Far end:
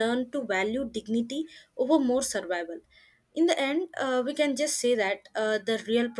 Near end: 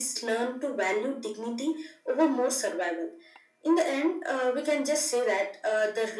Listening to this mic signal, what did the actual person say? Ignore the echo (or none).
none